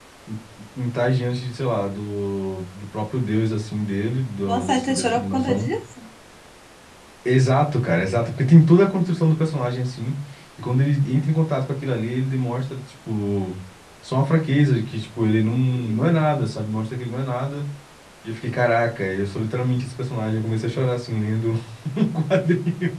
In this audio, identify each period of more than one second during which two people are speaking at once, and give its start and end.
4.4-5.7

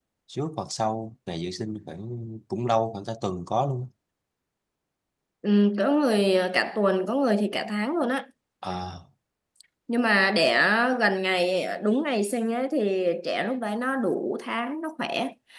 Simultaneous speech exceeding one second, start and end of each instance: none

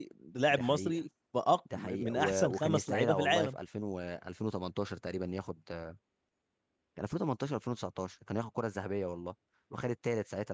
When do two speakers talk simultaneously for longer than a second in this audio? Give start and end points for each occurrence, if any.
1.8-3.5

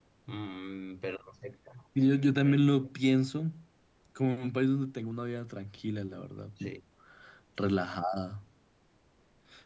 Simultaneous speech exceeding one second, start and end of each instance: none

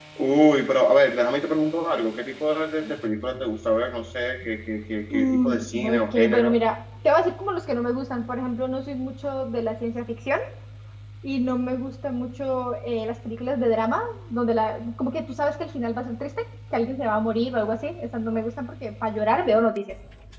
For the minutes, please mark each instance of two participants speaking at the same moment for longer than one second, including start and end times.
5.1-6.6

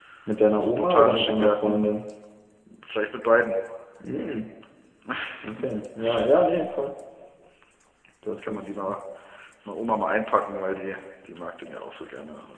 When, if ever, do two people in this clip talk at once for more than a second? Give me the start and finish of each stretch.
0.6-1.9

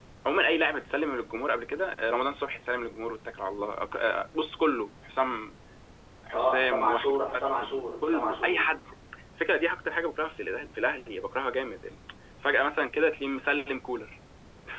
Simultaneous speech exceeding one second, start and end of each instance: 6.3-8.6

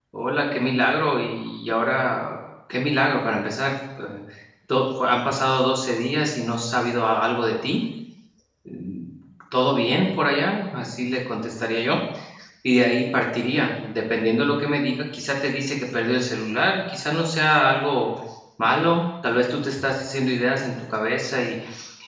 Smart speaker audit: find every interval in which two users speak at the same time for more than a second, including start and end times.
none

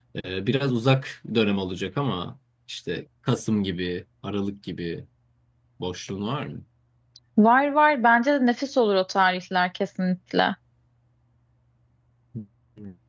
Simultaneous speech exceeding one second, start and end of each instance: none

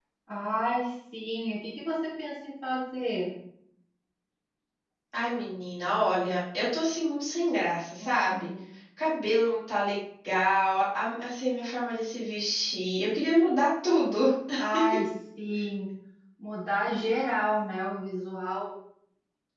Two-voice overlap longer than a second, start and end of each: none

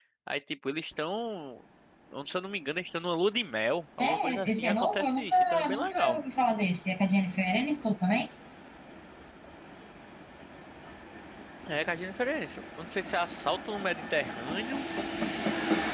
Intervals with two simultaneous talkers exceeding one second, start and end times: 4.0-6.2

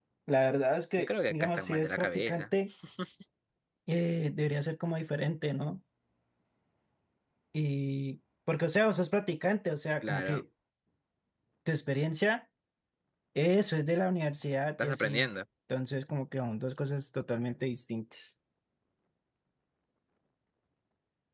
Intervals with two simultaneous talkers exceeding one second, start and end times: 1.0-2.4

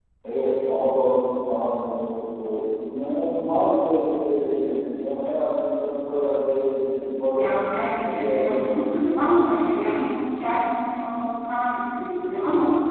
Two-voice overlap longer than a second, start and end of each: 7.3-9.0

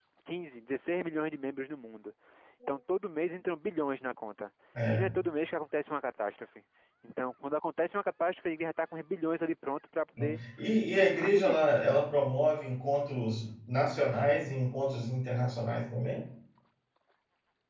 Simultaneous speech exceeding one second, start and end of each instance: none

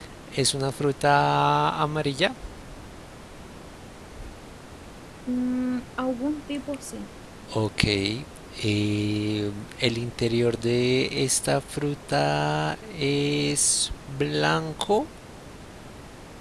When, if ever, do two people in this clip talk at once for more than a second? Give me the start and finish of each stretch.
none

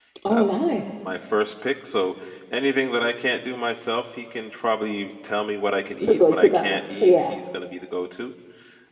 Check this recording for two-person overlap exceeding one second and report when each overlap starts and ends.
6.0-7.3

